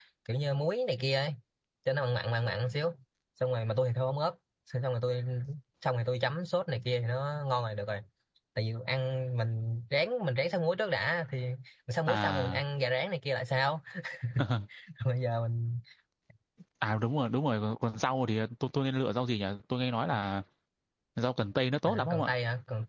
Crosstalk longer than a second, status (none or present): none